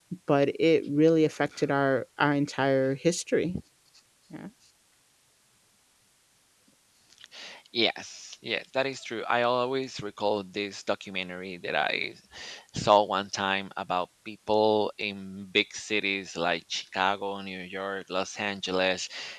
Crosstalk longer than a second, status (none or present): none